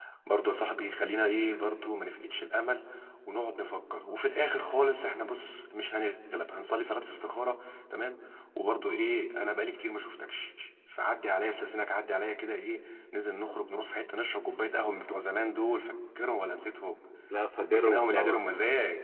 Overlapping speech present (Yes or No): Yes